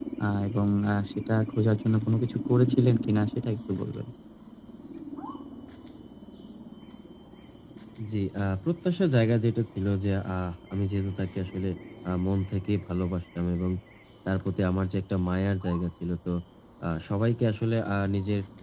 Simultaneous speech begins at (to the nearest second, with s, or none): none